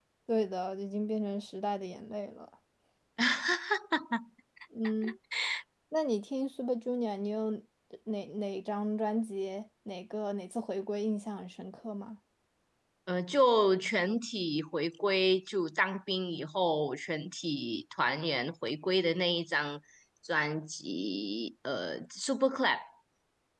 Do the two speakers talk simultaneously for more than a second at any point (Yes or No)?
No